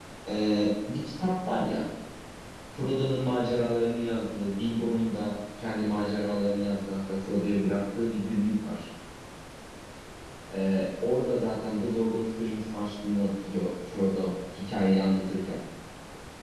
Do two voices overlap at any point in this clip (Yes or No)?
No